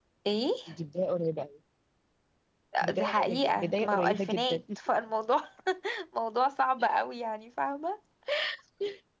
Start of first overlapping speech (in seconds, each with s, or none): 2.8 s